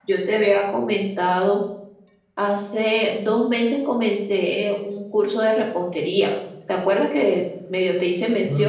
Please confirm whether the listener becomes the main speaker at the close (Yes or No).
Yes